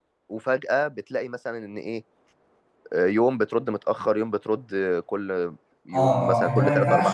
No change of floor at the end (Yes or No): No